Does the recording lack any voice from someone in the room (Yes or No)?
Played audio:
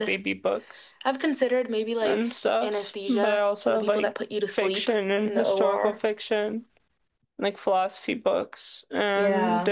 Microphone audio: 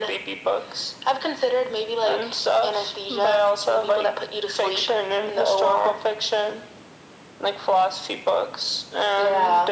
Yes